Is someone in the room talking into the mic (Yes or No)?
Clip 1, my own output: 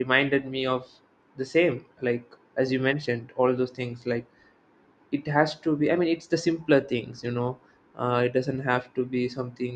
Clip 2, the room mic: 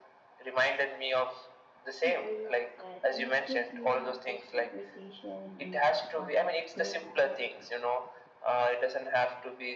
Yes